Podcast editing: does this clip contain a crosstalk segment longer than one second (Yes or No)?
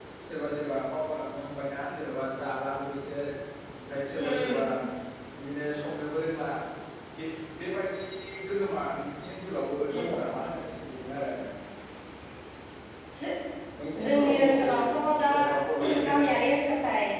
Yes